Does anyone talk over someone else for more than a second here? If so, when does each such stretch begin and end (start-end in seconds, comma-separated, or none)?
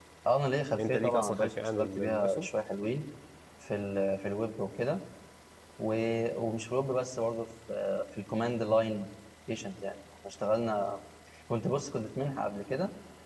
0.8-2.5